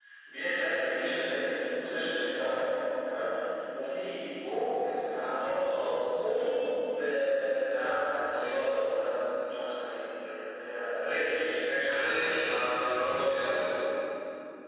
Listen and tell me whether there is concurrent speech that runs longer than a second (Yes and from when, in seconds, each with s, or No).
No